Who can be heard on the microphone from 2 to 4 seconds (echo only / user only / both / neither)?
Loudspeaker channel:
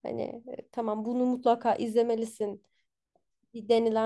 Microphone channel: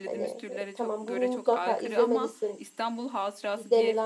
both